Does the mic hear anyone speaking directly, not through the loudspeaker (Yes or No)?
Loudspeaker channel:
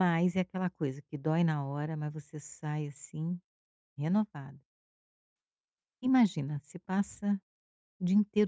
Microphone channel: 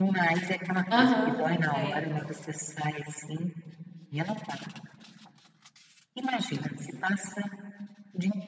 Yes